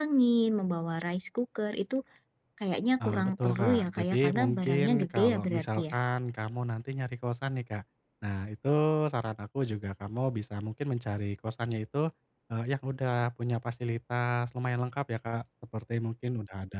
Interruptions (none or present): present